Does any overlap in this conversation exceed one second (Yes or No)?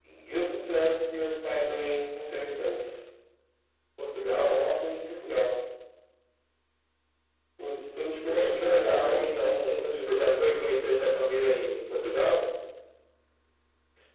Yes